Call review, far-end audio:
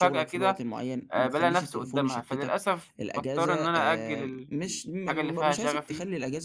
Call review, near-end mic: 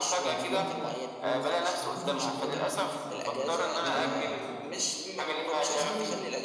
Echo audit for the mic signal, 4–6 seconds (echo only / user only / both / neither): both